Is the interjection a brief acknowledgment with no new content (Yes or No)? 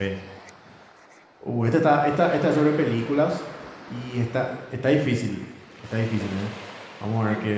Yes